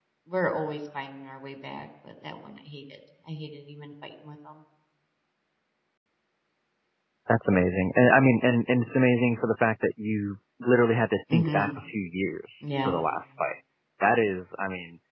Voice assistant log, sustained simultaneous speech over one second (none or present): none